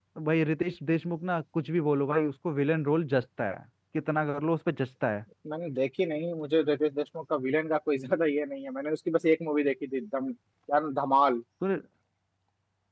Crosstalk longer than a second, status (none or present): none